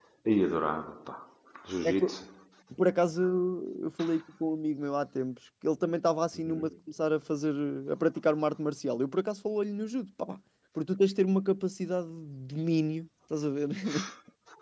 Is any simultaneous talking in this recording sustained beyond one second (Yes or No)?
No